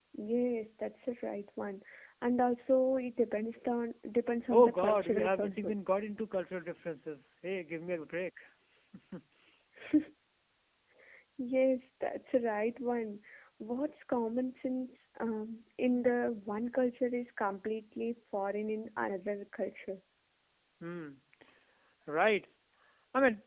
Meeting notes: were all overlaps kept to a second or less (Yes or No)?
No